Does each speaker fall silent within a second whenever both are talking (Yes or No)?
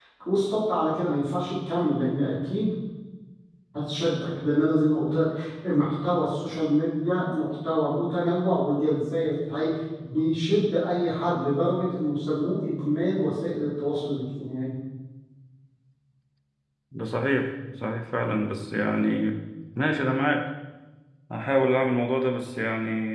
Yes